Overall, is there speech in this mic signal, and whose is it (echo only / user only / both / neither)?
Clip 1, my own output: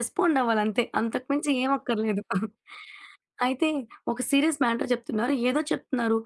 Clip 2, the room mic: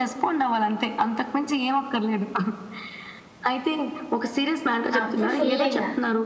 both